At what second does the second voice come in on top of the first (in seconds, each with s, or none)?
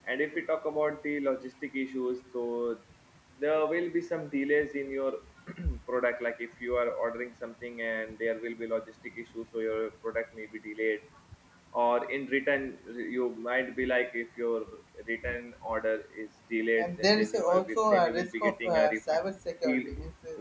16.8 s